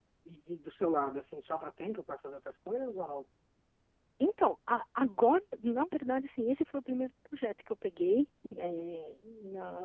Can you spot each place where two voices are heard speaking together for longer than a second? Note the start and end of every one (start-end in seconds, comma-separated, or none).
none